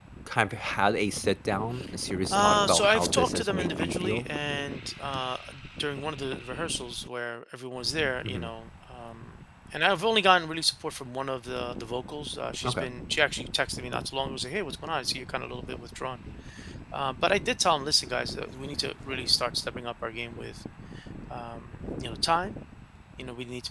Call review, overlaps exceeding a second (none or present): present